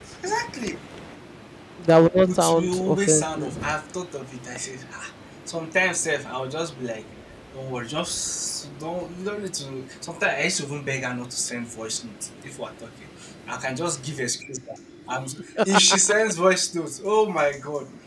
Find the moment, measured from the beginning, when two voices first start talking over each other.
2 s

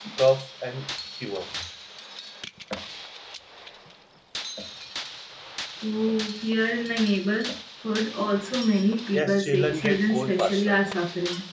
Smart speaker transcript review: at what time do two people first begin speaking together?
9 s

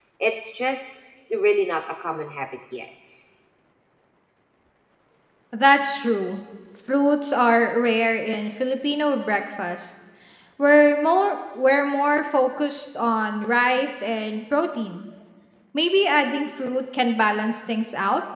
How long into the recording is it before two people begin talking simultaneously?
none

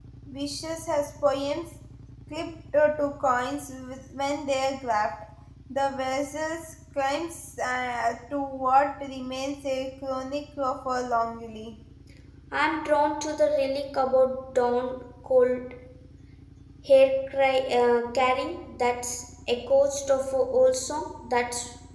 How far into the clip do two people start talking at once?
none

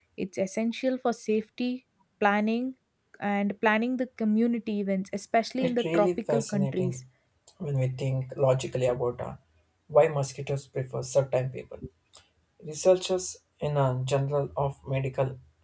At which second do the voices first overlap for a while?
6 s

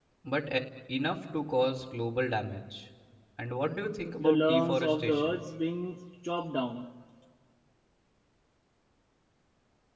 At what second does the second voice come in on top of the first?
4 s

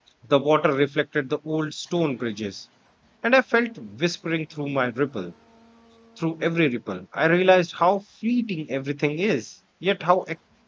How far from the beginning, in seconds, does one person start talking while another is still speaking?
none

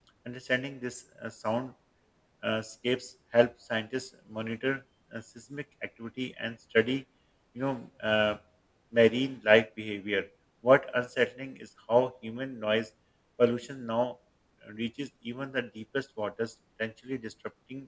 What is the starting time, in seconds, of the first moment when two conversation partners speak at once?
none

